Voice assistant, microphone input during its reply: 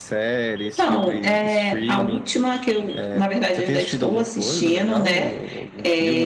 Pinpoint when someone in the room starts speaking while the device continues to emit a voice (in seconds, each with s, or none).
0.6 s